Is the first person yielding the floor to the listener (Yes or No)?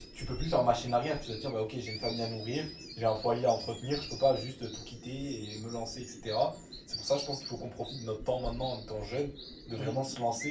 No